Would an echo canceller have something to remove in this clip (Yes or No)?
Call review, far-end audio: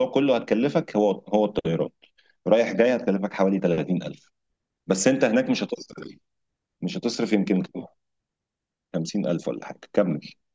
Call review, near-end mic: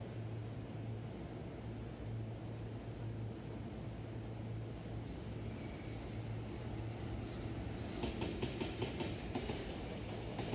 No